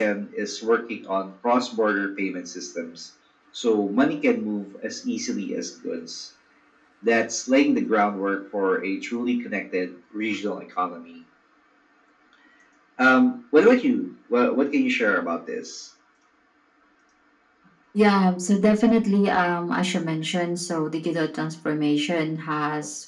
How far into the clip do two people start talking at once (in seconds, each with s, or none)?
none